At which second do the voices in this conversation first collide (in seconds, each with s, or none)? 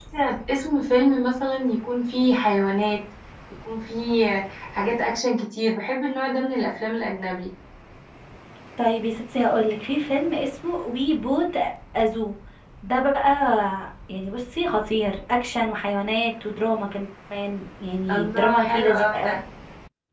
18.1 s